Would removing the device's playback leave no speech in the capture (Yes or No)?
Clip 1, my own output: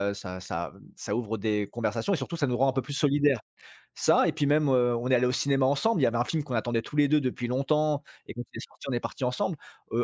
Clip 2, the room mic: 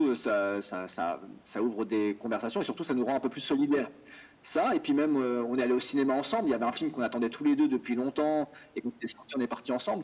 Yes